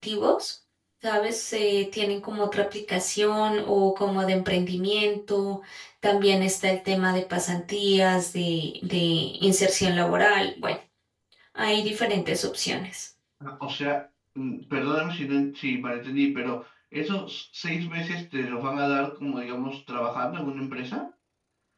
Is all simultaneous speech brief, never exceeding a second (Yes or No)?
Yes